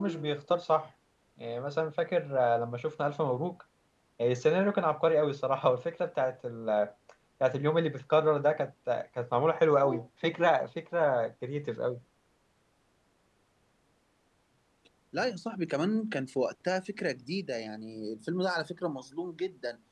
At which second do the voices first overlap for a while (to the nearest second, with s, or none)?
none